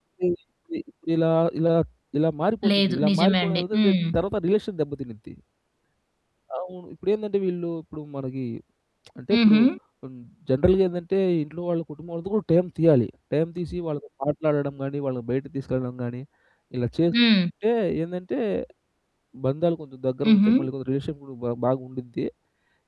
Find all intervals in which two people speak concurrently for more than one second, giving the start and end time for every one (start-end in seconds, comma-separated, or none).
2.7-4.0